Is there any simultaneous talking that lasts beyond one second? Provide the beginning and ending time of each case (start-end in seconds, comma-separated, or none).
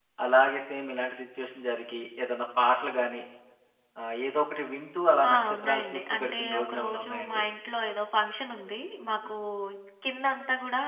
5.3-7.4